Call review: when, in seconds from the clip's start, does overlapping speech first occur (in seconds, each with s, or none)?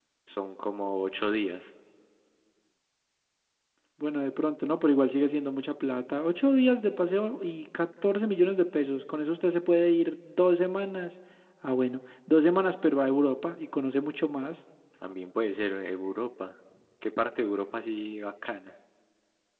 none